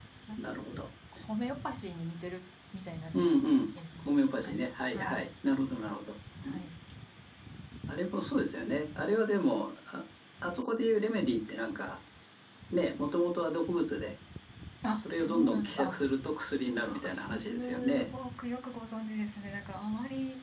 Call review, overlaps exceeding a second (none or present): present